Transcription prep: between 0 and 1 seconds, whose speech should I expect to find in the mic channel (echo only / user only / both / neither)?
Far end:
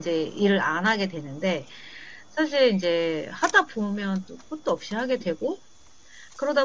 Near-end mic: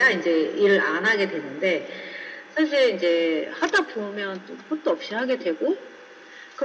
echo only